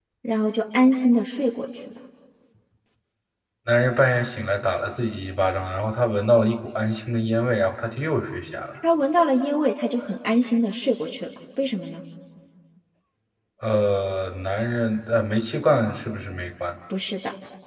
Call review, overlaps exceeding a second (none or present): none